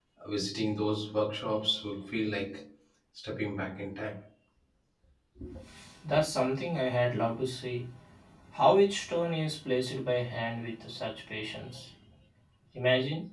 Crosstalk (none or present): none